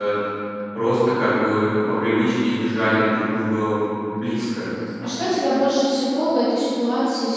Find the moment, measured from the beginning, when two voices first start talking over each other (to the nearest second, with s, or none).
none